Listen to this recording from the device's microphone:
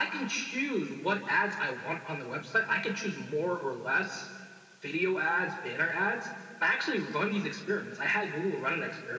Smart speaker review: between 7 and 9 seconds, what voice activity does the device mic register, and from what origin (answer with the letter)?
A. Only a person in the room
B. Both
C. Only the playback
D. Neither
C